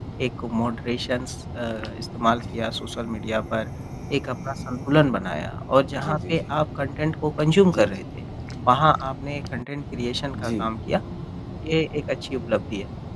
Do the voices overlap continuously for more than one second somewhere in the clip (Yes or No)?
No